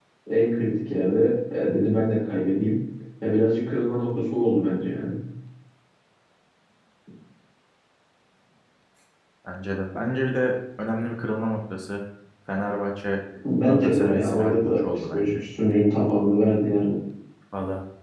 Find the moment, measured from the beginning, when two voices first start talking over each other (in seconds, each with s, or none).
13.6 s